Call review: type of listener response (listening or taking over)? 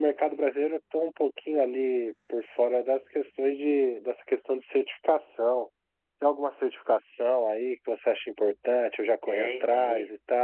taking over